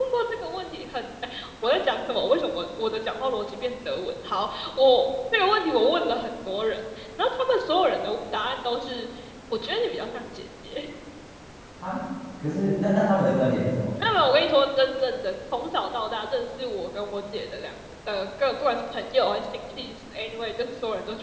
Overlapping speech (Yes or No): No